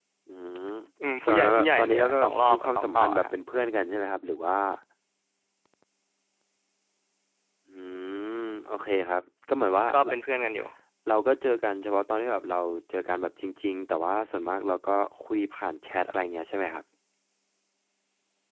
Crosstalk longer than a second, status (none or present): present